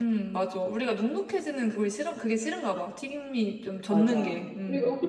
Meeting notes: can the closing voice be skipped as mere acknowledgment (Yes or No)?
No